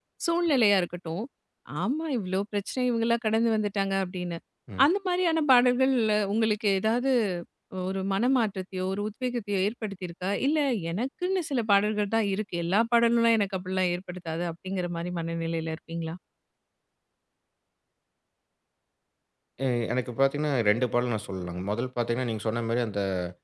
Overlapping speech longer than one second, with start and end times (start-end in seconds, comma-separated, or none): none